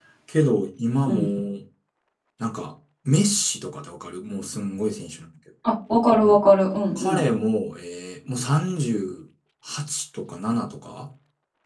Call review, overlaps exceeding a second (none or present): none